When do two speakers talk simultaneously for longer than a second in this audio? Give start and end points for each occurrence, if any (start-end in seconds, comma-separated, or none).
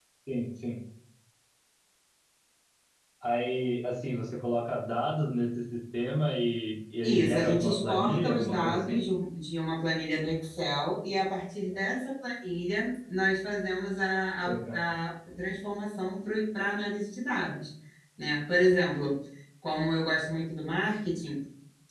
7.0-9.1